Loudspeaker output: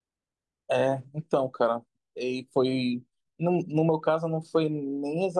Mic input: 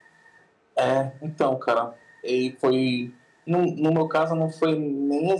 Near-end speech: none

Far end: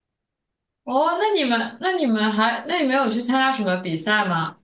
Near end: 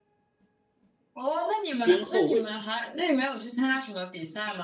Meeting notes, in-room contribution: present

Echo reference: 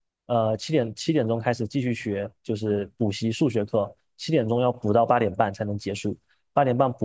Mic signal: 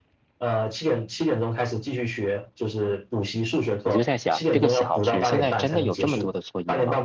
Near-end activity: present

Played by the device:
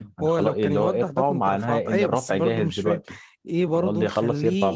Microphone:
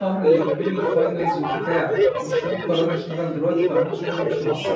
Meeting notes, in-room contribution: present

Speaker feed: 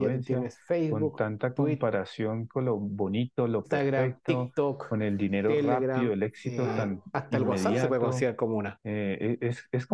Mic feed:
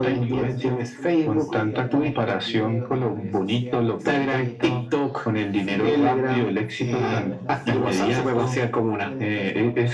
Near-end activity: present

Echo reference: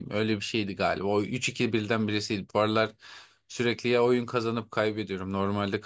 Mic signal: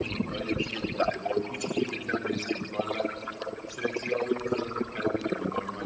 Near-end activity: none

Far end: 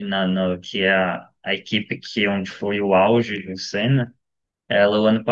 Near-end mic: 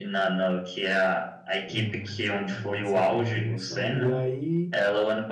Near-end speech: present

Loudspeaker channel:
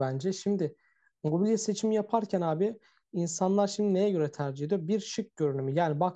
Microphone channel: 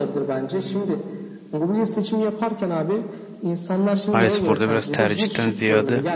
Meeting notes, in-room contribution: present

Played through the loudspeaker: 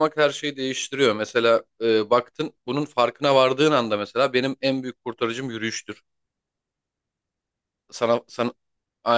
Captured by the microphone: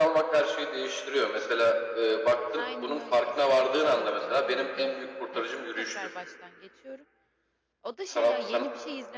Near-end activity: present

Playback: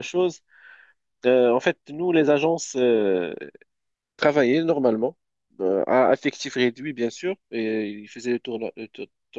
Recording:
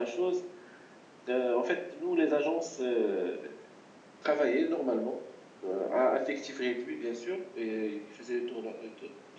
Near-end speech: none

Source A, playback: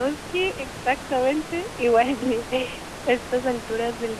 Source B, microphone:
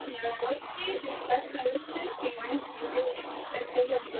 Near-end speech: none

